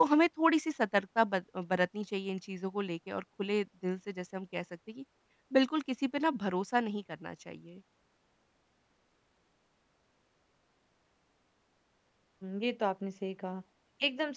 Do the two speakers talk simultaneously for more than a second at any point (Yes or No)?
No